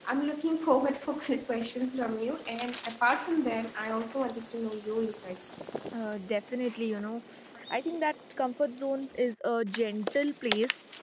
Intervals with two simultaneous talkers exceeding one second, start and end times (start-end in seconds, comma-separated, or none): none